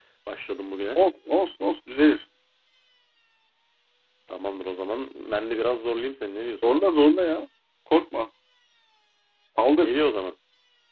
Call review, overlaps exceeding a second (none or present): none